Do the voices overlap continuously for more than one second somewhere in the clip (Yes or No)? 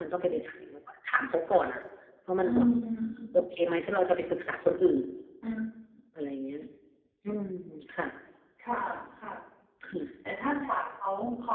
No